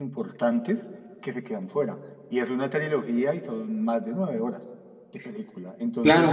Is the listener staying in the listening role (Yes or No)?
Yes